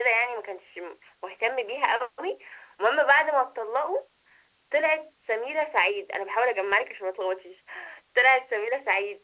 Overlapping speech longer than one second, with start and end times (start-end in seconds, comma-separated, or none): none